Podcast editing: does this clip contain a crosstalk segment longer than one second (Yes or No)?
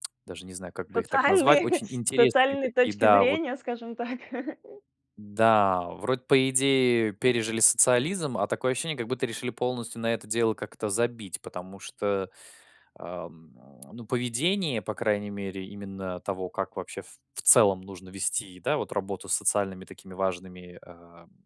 Yes